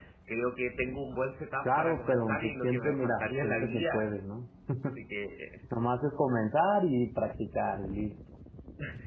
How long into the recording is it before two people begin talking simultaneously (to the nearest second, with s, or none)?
2 s